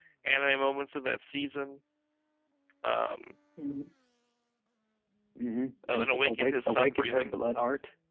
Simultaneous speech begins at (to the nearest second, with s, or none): 6 s